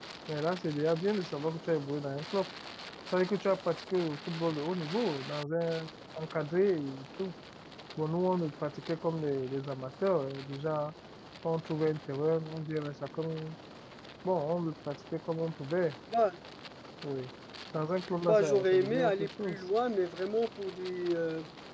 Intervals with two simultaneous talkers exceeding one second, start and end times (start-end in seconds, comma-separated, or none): 18.2-19.6